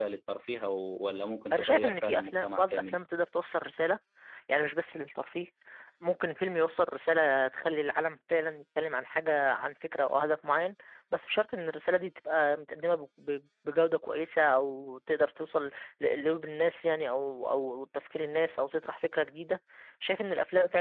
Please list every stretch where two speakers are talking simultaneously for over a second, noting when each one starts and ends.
1.5-3.0

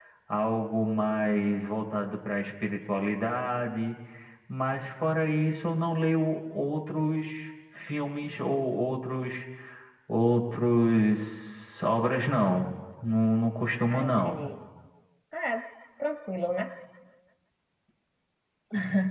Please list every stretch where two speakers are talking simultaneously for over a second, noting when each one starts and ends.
none

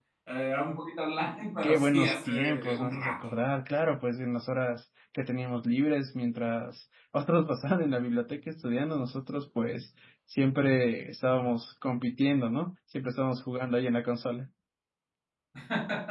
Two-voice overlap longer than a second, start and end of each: 1.6-3.1

